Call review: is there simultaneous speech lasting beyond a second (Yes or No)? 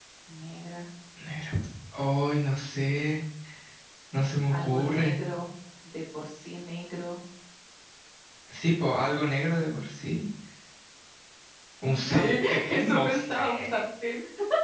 Yes